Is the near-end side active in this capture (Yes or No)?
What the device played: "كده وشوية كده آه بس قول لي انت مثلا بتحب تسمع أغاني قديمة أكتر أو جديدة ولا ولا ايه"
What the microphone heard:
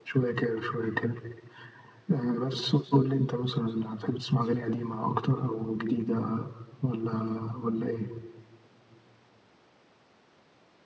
No